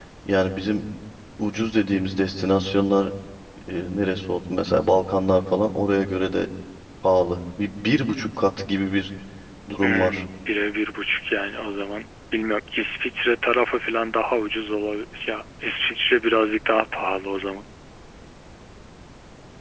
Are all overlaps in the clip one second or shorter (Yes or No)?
Yes